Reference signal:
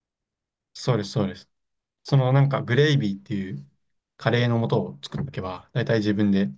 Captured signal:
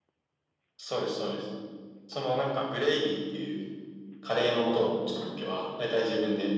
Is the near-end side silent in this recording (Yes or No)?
Yes